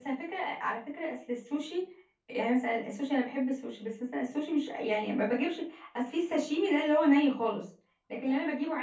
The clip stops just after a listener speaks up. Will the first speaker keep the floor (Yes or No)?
Yes